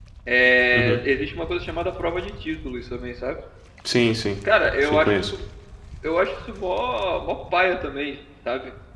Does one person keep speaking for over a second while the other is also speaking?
No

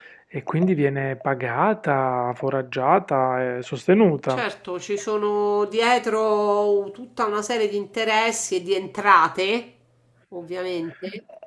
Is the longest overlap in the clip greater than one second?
No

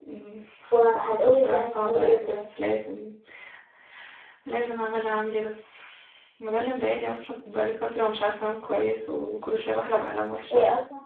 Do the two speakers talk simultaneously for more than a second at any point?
Yes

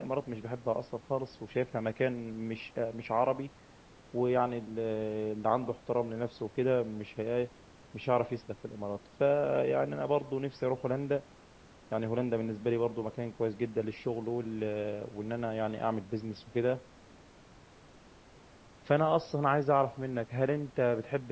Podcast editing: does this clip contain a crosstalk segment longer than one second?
No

